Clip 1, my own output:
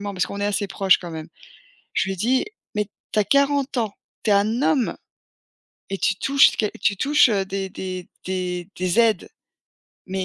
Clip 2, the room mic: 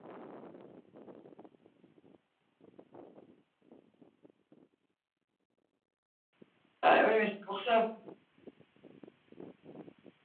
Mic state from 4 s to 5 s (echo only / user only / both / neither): neither